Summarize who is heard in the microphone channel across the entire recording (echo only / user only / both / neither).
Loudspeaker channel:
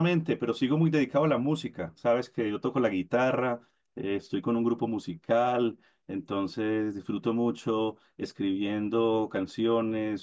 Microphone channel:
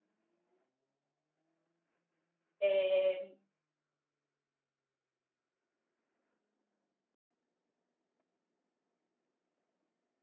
user only